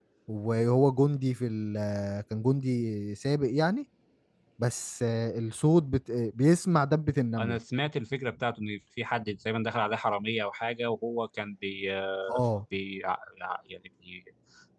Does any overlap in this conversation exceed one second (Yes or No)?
No